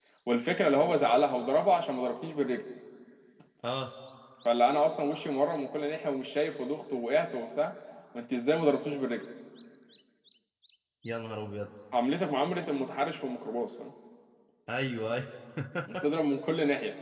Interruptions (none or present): none